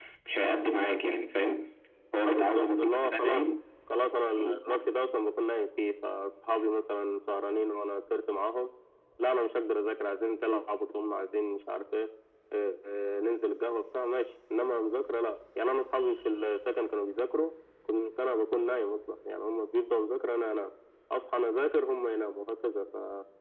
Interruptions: present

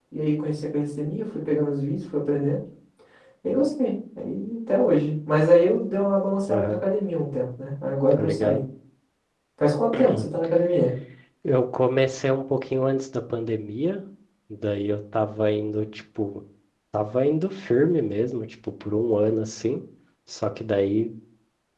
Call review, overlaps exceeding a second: none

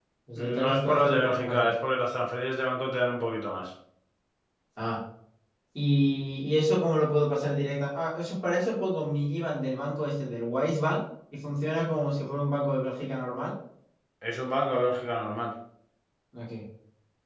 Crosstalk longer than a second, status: present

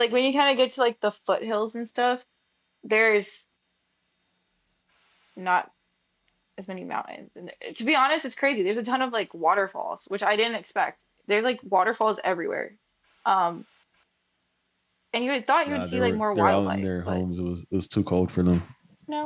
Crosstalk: present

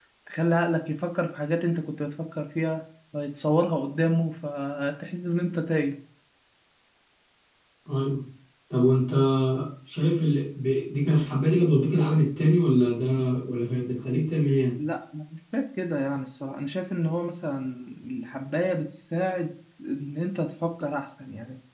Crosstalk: none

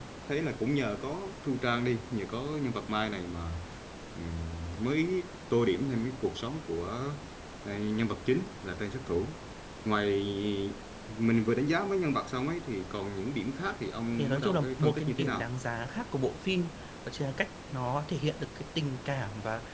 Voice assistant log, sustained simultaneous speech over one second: present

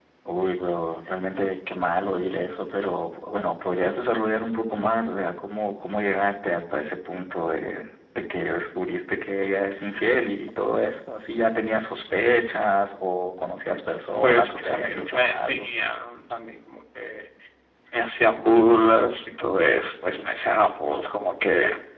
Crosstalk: present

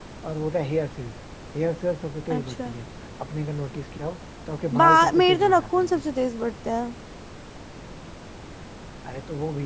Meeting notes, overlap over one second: present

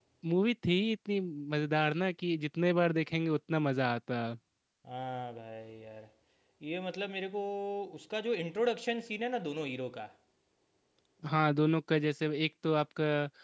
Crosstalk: none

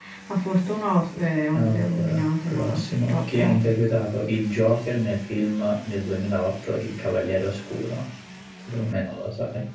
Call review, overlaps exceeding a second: present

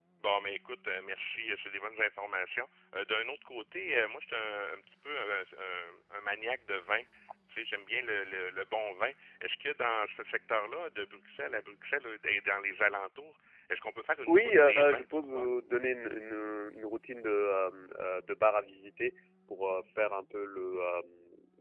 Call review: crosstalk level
present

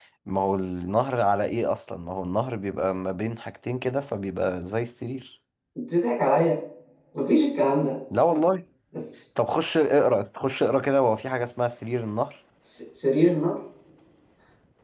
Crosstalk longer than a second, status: none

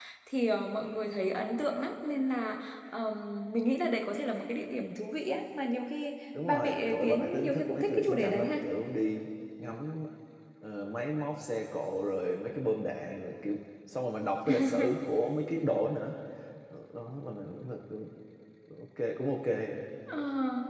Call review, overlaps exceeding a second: present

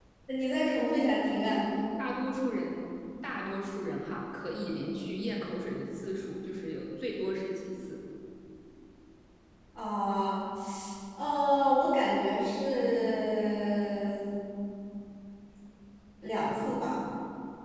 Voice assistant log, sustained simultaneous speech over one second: none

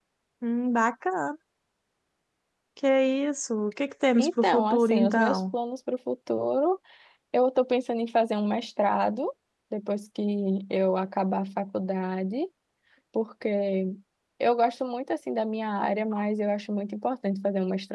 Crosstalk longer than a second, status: present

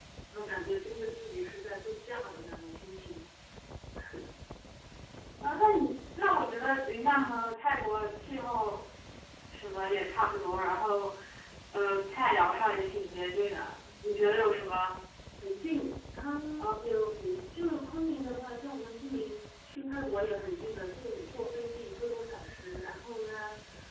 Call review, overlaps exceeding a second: none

